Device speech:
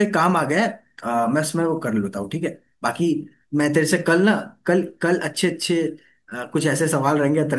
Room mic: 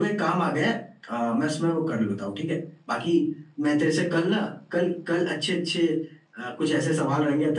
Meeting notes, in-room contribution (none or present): none